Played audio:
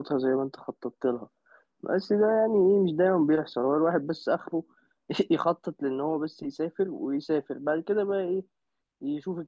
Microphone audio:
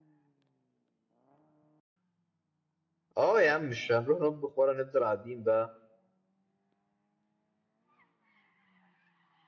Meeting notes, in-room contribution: present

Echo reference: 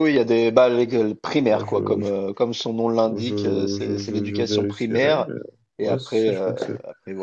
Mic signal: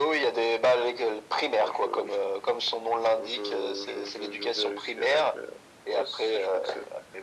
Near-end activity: none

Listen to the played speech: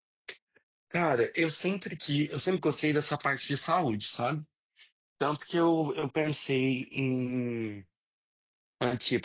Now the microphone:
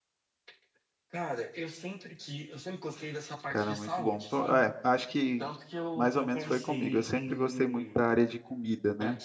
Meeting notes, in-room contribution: present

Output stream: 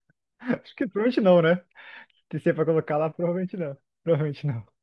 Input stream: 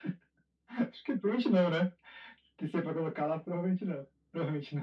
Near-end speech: none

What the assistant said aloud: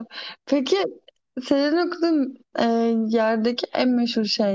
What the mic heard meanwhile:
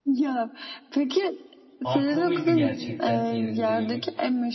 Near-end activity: present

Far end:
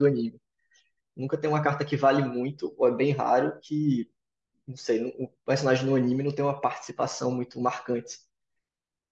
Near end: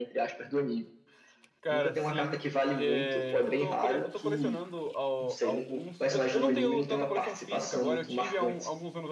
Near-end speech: present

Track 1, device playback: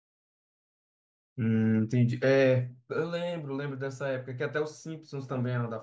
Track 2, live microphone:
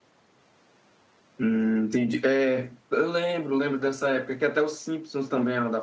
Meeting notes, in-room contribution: none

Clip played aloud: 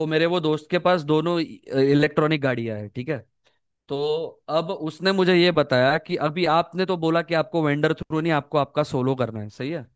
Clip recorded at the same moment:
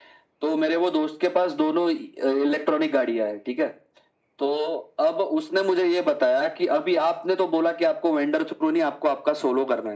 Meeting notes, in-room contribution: none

